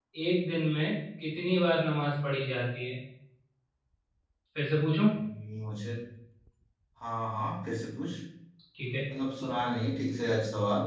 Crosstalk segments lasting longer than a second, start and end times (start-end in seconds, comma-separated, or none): none